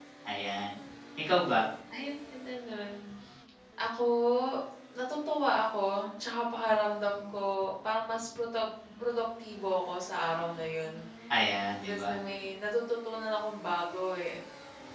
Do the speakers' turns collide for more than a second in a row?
No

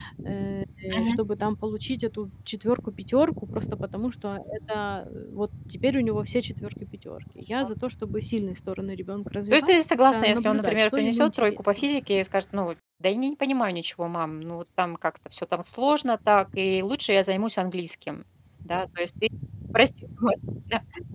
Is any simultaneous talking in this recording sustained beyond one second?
Yes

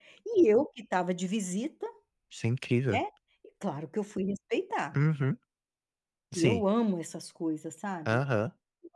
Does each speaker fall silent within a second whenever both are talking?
Yes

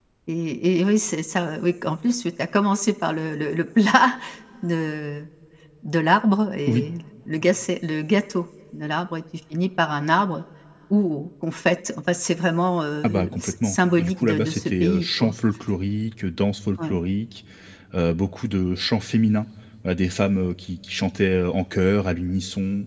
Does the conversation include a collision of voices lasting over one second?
Yes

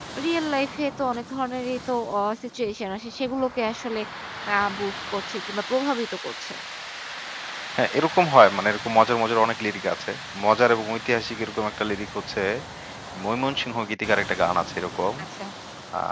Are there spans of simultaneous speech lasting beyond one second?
No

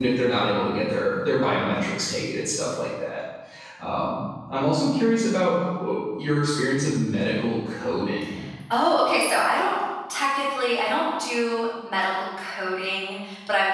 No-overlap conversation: Yes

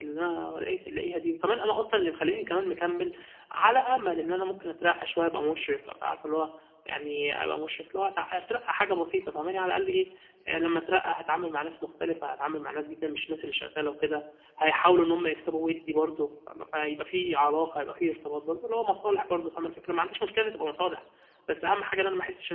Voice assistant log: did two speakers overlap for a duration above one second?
No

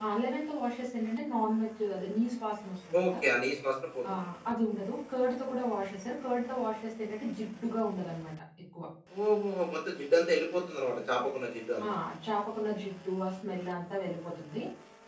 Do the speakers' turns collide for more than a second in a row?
No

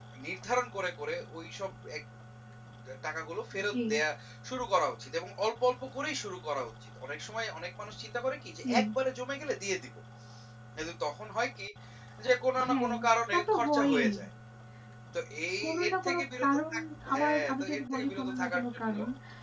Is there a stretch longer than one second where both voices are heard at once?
Yes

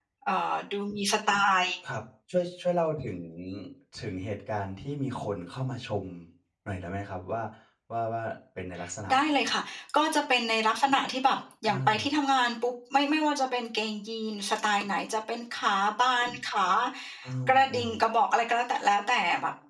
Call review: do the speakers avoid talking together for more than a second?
Yes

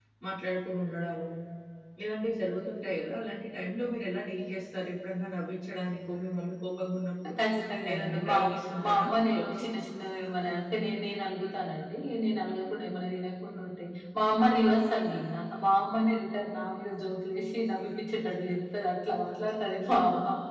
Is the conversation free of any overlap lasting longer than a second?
No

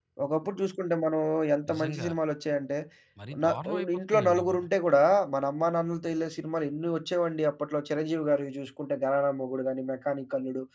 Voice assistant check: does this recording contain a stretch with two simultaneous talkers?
Yes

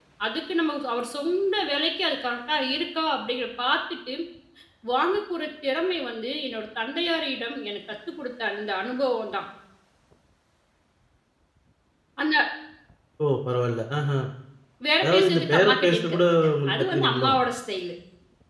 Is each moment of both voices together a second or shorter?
No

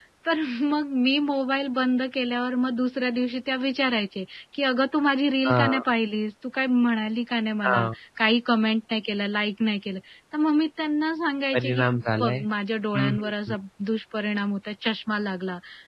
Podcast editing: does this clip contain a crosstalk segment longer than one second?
No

